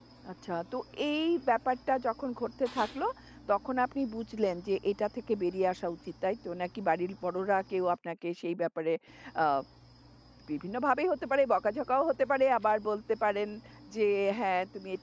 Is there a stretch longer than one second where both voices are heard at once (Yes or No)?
No